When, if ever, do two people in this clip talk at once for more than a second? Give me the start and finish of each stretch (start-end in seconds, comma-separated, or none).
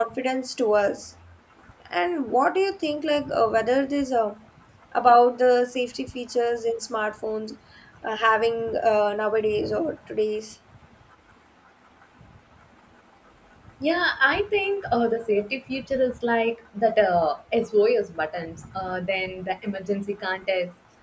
none